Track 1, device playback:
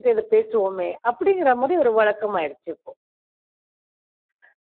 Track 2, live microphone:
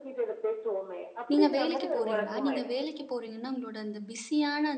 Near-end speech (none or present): present